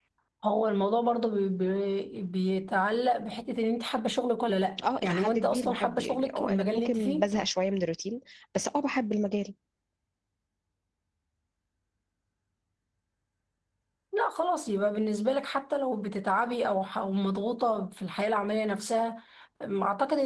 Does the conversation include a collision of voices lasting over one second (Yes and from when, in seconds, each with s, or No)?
Yes, from 4.8 s